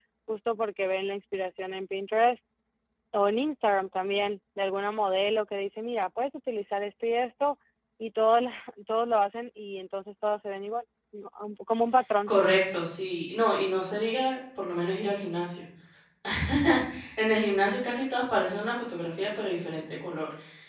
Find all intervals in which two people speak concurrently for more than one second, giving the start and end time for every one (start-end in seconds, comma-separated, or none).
none